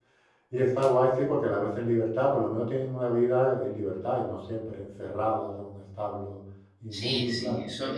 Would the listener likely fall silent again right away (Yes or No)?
No